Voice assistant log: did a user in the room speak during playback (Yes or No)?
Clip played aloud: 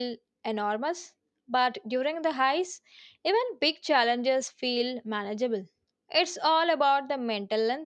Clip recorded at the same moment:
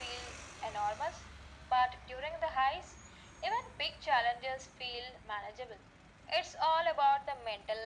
No